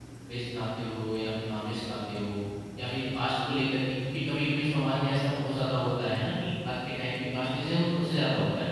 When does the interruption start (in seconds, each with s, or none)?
none